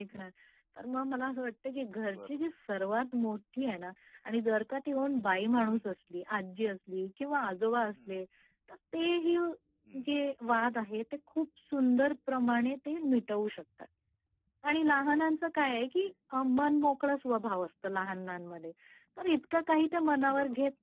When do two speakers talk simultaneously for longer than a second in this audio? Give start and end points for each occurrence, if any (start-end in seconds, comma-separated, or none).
none